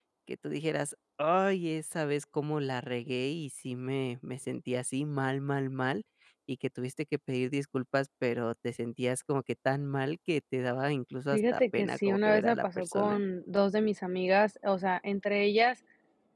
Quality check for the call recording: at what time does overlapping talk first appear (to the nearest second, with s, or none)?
11 s